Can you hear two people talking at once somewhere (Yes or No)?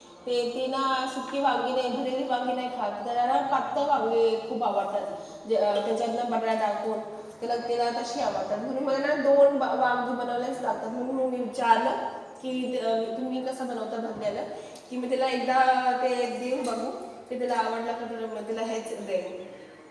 No